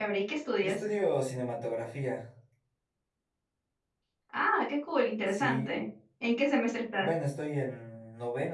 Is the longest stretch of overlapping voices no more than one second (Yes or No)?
Yes